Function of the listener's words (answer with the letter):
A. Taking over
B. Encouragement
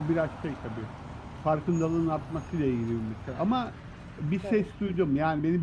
B